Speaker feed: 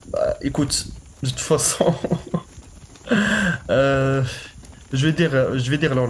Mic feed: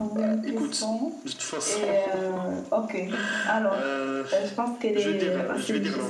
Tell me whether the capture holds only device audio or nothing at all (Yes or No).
No